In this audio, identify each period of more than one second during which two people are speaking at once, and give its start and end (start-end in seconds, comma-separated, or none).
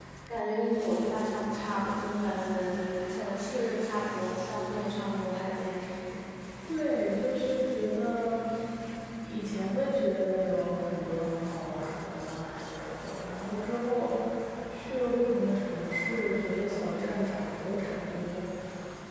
none